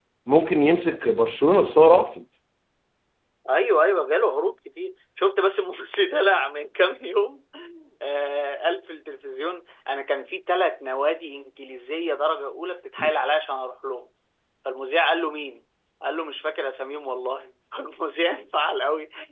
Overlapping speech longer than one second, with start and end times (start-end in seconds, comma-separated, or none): none